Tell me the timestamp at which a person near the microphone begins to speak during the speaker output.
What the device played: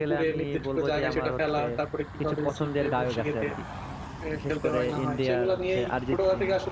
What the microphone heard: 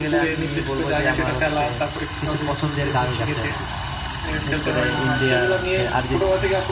none

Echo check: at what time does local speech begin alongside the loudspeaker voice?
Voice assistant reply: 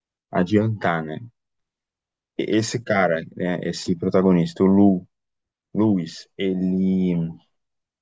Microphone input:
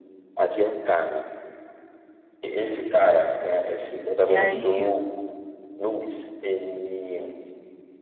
4.2 s

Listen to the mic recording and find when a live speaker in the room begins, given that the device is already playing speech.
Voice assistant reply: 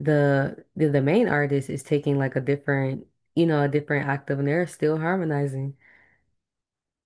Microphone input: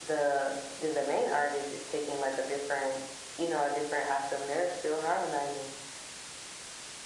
none

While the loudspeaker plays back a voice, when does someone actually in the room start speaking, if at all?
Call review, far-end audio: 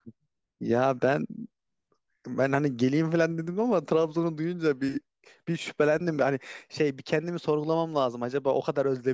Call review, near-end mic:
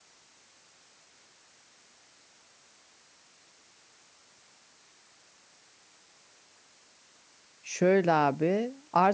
7.6 s

